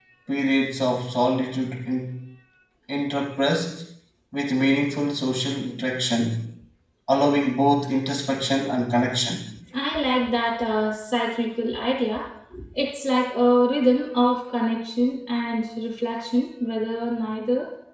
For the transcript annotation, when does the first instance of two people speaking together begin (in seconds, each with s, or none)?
none